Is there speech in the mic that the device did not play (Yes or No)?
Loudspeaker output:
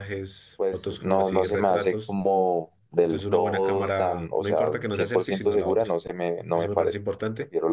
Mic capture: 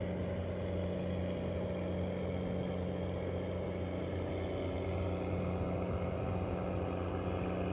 No